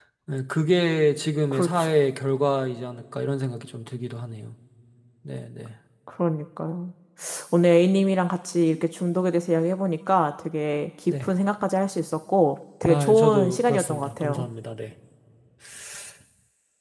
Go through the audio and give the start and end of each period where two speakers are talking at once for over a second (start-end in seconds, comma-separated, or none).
12.8-14.4